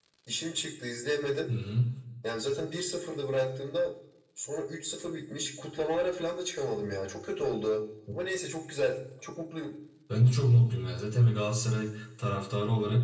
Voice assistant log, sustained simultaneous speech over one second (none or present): none